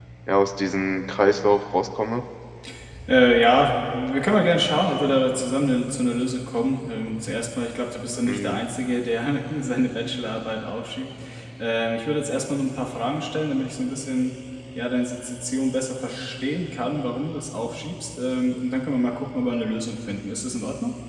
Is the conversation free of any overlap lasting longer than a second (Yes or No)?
Yes